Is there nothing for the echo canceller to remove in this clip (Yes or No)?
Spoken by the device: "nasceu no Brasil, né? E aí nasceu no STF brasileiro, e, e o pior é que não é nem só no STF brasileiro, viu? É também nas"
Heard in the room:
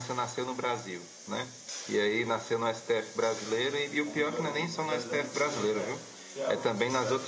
No